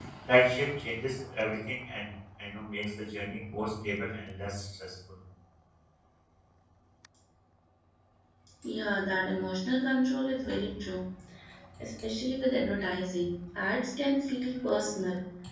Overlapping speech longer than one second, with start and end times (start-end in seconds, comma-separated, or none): none